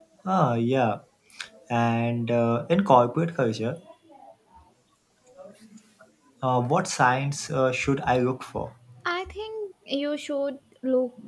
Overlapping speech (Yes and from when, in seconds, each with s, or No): No